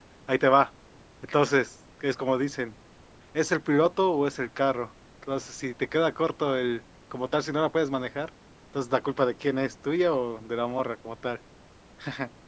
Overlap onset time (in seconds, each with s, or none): none